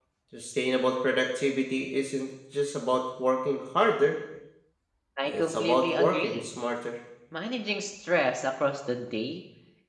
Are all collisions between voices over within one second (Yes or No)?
No